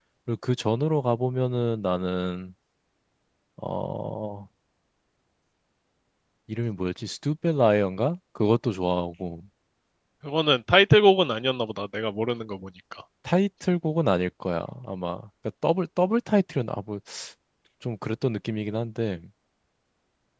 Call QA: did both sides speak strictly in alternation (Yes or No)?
Yes